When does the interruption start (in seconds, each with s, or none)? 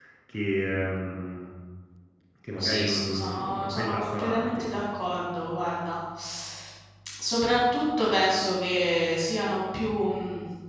2.6 s